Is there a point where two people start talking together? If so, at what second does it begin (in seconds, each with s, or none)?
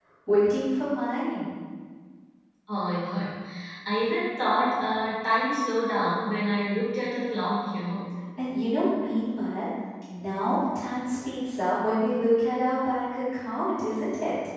none